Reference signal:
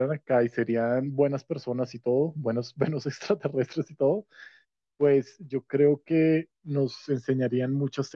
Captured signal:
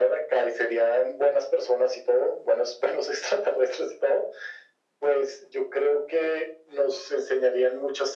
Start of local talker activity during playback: none

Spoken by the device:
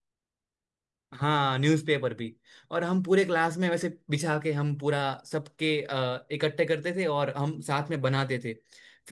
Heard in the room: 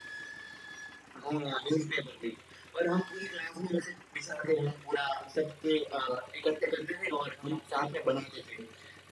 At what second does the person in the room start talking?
none

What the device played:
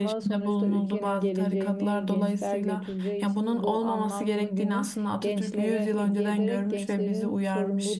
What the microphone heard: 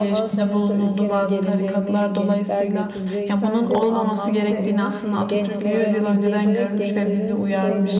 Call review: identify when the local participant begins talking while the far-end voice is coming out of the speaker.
3.4 s

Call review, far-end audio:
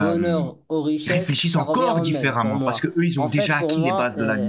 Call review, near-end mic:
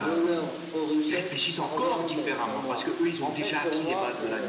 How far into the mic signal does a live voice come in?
none

